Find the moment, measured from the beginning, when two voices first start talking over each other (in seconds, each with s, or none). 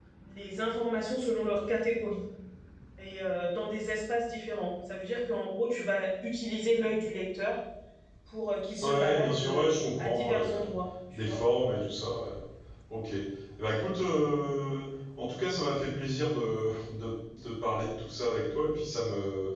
8.8 s